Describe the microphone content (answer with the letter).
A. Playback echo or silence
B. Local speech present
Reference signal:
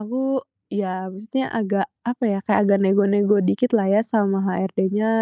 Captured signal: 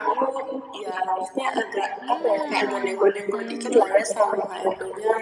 B